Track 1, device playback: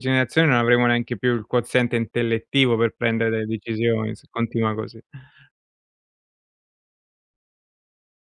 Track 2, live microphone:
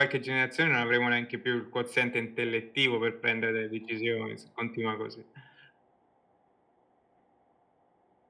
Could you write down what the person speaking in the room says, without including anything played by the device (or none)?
none